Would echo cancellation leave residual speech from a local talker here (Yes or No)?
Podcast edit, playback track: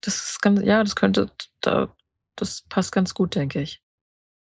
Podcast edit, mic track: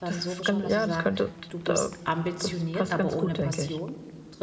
Yes